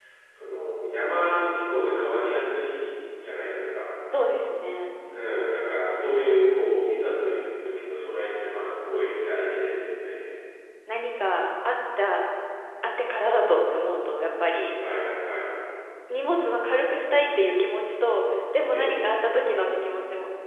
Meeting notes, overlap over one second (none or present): none